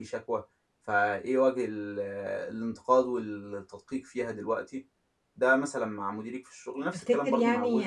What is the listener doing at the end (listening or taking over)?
taking over